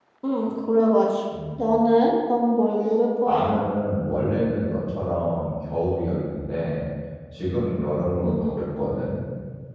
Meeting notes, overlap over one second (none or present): none